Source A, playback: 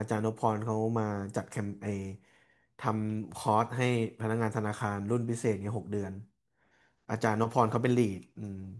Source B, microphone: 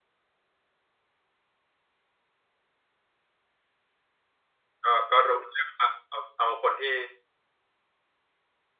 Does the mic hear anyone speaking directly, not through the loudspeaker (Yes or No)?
Yes